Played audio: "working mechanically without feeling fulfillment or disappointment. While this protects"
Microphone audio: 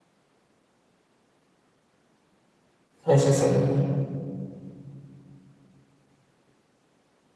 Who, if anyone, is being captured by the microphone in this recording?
user only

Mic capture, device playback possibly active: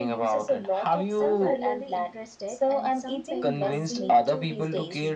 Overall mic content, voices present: both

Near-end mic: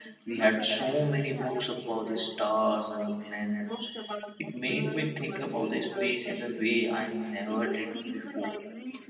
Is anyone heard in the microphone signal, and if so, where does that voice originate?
both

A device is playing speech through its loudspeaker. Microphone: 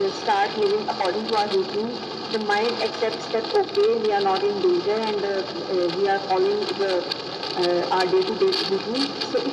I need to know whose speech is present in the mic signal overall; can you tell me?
echo only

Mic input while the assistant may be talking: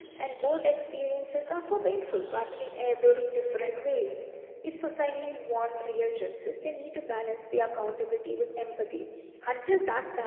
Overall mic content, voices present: echo only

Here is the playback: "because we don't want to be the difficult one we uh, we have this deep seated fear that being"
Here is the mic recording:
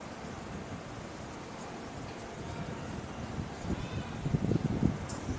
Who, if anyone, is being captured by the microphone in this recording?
neither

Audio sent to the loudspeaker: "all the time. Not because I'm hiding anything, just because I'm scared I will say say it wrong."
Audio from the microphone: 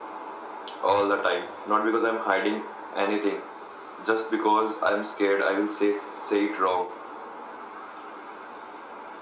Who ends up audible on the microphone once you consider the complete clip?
echo only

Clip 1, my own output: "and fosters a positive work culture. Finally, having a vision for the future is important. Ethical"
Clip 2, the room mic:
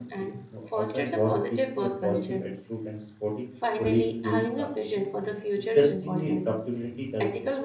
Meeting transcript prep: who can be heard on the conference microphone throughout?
both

